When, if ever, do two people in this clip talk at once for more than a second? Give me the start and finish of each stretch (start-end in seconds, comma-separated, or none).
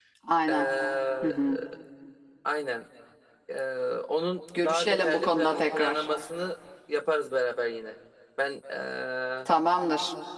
4.6-6.0